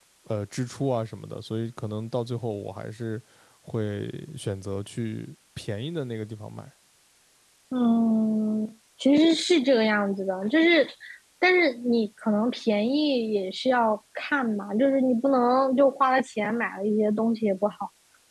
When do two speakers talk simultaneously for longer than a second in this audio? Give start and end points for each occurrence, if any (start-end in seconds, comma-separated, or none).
none